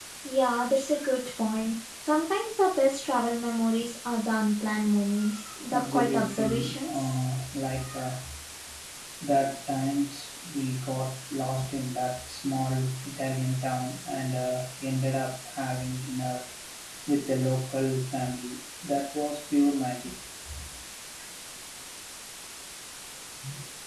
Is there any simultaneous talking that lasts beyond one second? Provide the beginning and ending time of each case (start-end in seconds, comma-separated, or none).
5.7-7.1